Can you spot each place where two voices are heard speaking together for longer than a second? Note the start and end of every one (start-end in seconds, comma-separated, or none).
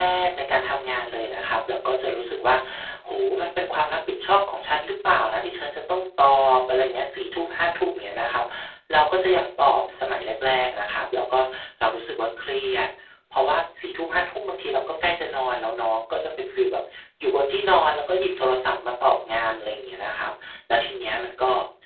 none